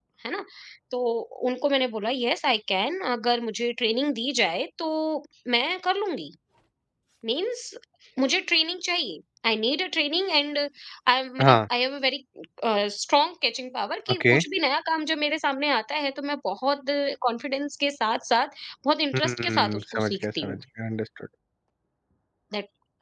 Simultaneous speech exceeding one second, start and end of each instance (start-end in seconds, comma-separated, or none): 19.1-20.6